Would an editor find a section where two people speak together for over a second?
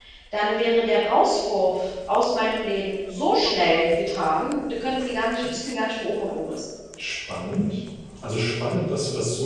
No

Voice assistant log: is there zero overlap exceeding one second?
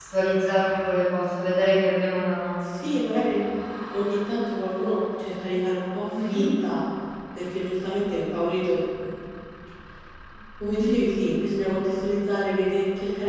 Yes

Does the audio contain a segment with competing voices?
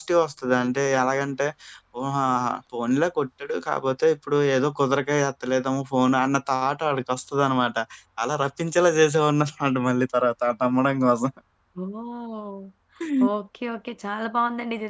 No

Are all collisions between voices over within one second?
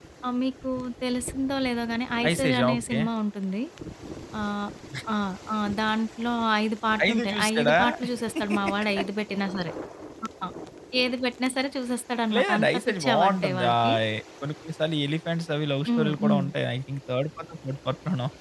No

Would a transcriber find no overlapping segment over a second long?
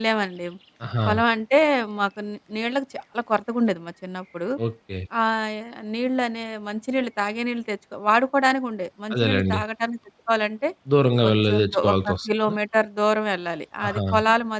No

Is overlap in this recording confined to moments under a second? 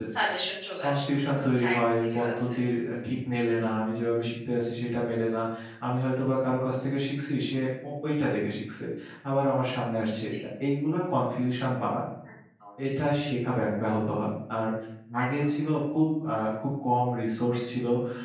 No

